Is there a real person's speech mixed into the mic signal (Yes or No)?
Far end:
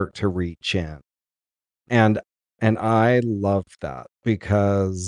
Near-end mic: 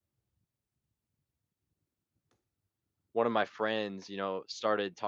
Yes